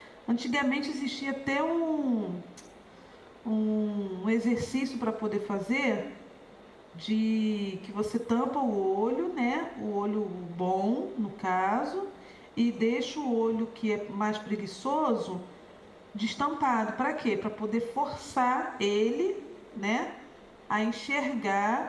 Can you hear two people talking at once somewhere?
No

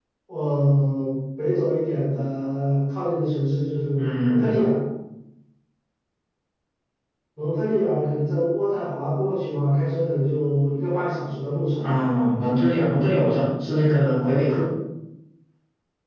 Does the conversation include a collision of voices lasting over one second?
No

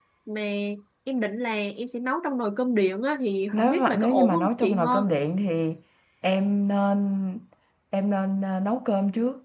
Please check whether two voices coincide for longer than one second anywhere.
Yes, from 3.5 s

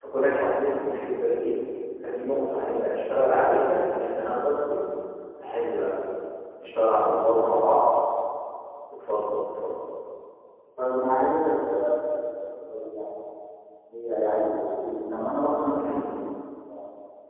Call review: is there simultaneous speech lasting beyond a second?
No

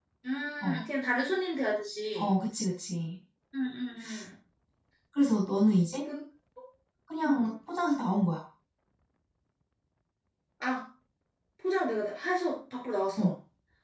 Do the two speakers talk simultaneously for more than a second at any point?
No

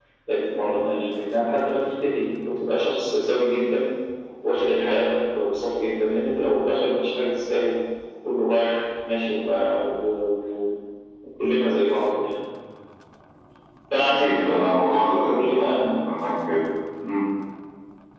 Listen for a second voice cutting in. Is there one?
Yes, from 14.0 s

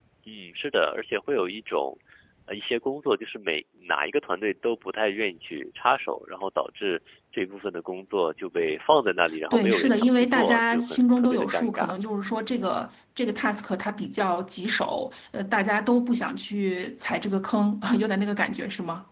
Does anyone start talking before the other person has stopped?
Yes, from 9.5 s

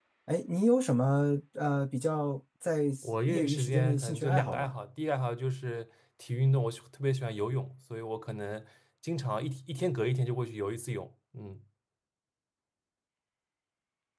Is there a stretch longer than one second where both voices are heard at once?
Yes, from 3.3 s

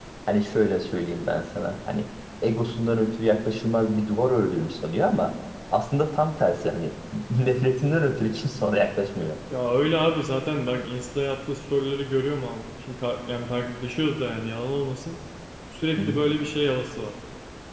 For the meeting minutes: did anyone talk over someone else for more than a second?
No

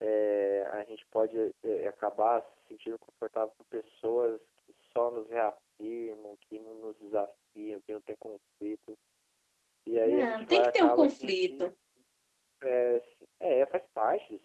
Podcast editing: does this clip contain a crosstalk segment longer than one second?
Yes, from 10.0 s

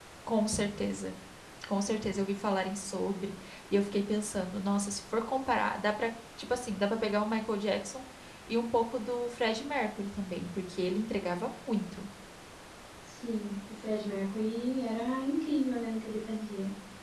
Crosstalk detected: No

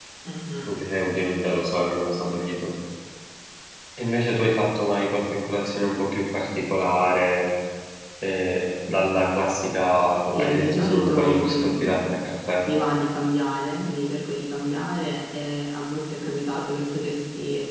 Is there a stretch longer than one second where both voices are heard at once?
Yes, from 10.3 s

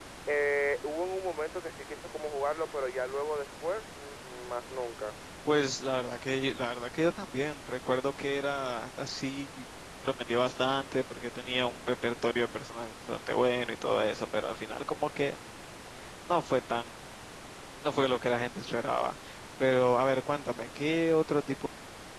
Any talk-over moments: No

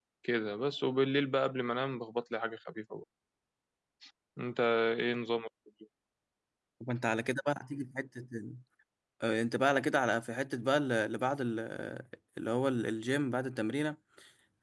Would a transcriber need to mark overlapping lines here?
No

